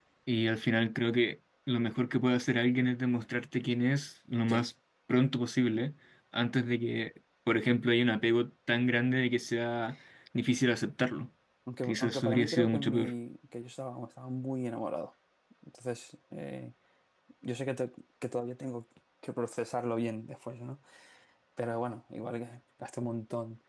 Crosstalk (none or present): present